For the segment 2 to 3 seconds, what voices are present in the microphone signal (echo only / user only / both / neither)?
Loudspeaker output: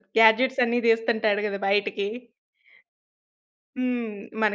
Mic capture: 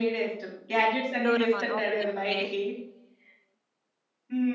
both